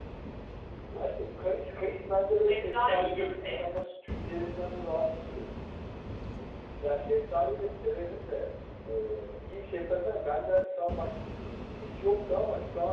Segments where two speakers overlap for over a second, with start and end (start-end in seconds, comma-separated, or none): 2.5-3.8